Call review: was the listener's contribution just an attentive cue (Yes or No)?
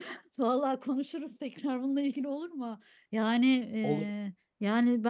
Yes